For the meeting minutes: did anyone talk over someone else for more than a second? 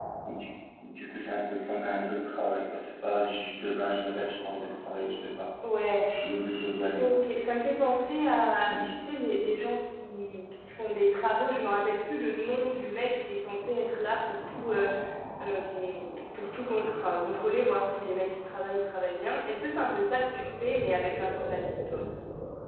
No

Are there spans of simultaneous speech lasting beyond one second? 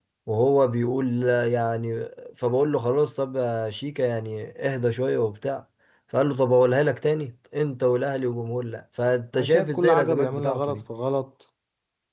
Yes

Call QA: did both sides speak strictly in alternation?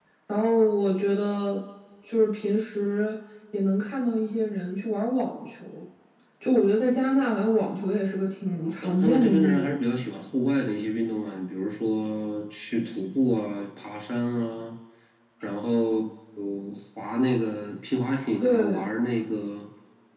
No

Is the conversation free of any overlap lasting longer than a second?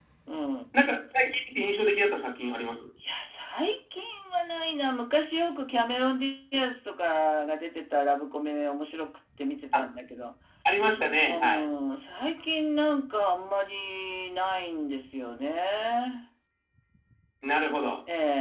Yes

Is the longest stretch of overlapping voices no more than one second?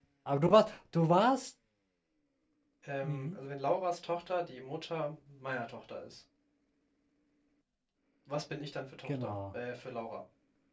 Yes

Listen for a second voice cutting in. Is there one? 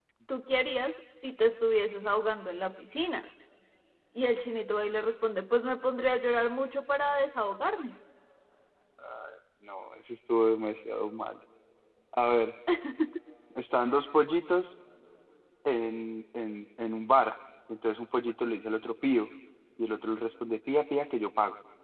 No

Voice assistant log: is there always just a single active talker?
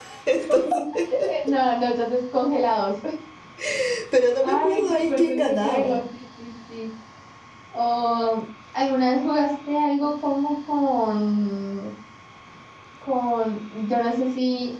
No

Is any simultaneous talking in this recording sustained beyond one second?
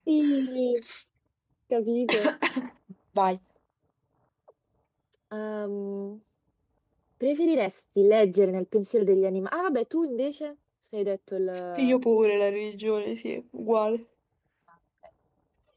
No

